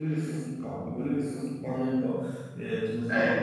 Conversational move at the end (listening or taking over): listening